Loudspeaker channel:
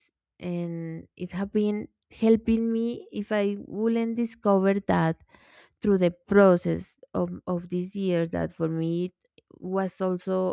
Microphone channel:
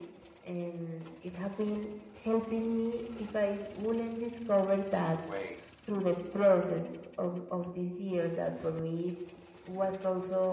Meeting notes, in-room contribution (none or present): present